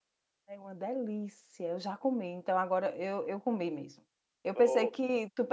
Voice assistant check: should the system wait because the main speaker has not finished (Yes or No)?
Yes